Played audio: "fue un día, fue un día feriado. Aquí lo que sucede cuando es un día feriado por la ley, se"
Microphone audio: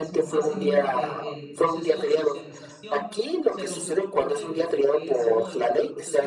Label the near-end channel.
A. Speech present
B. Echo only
A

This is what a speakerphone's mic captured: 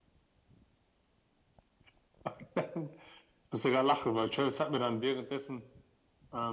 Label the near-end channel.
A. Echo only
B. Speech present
A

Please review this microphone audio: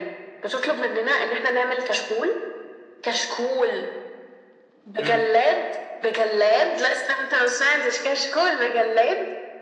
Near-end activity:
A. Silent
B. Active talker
B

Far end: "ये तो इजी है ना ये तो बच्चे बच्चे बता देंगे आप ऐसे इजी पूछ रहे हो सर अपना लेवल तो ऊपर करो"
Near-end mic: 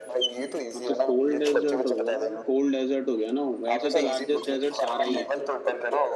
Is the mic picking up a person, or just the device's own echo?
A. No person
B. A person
B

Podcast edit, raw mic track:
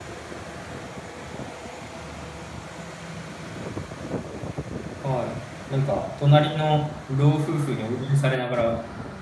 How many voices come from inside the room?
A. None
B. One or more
B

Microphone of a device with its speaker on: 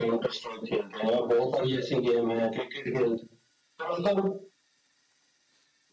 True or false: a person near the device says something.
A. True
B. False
B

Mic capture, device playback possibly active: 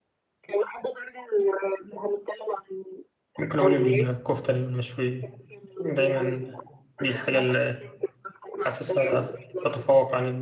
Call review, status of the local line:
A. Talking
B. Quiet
A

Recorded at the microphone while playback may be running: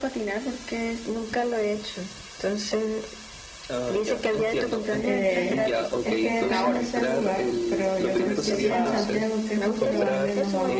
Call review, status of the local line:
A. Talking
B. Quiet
A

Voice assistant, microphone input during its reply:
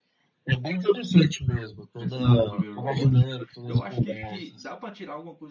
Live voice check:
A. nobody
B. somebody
B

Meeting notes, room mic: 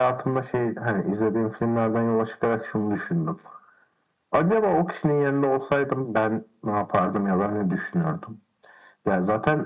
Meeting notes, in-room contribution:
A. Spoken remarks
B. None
B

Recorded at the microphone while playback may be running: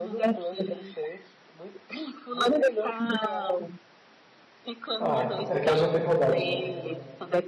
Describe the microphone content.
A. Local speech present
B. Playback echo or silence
A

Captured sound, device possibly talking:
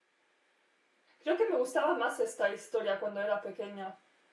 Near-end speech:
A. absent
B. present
B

